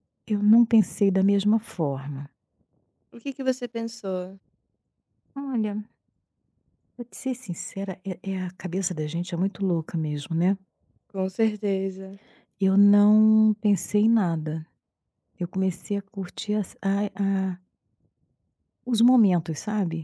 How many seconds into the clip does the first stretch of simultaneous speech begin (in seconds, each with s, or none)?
none